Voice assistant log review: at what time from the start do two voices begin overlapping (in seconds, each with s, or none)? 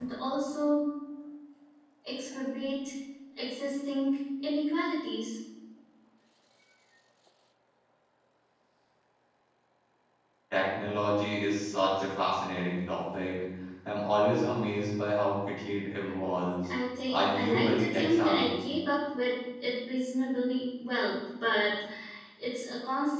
17.1 s